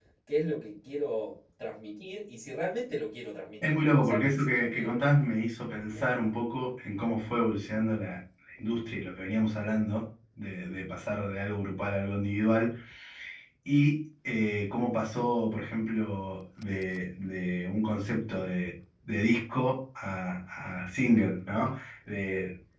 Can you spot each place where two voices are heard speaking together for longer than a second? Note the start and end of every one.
3.6-5.0

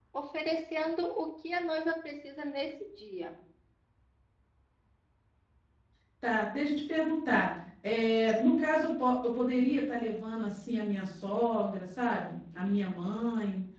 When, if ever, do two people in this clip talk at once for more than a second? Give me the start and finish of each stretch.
none

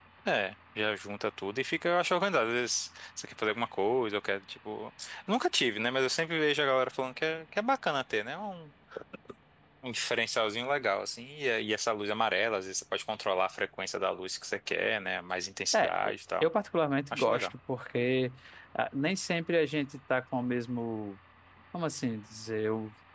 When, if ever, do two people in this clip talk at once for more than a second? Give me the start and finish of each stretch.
none

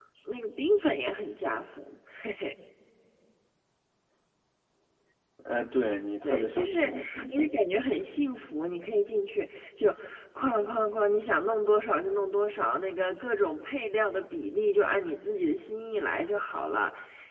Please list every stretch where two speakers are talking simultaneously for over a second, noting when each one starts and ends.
6.2-7.5

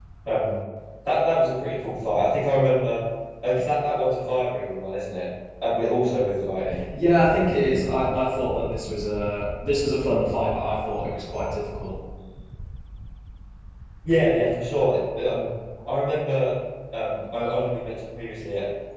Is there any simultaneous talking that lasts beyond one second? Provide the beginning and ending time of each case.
none

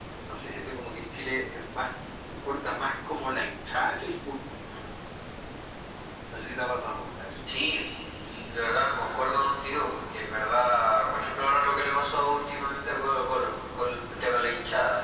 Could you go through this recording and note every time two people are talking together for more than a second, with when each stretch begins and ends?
none

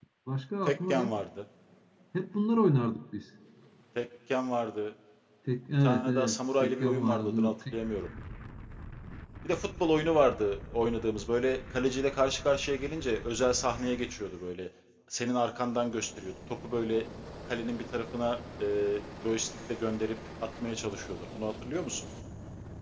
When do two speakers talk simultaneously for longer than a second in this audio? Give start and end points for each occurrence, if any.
5.8-7.7

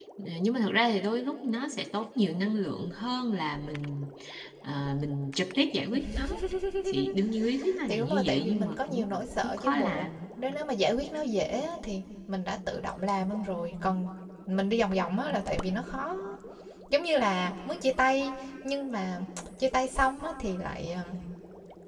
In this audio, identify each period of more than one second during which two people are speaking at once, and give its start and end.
7.9-10.1

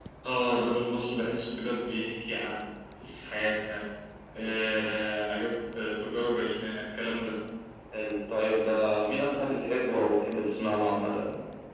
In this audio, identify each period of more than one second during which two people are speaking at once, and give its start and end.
none

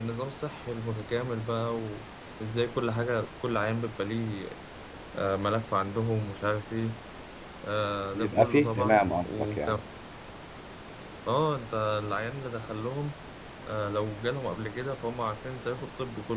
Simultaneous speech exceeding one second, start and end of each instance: 8.1-9.8

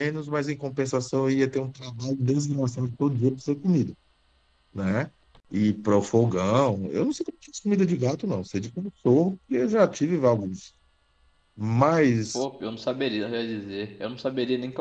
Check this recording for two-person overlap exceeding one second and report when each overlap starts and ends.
none

